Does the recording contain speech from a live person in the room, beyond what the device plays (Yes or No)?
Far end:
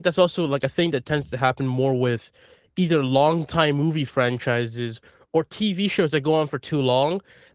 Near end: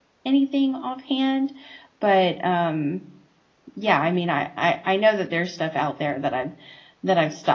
Yes